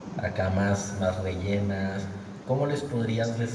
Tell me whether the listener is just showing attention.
No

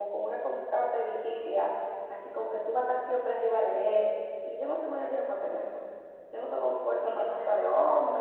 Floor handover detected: No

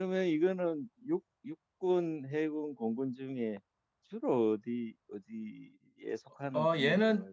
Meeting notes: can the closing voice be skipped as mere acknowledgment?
No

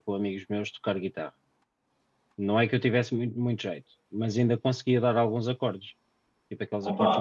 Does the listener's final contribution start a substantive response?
Yes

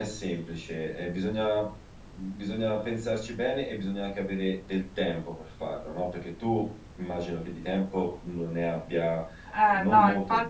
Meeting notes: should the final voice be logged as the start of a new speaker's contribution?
Yes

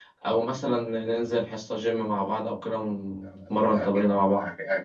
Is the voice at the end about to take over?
Yes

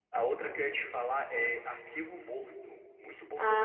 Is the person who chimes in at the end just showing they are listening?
No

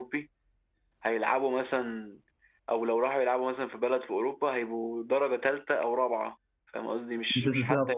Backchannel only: No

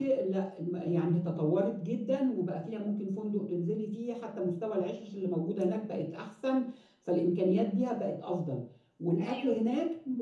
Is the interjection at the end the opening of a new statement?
No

